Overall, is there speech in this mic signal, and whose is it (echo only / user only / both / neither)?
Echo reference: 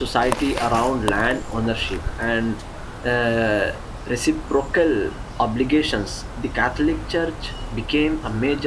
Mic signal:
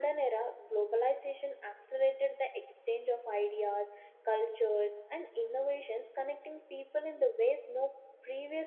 user only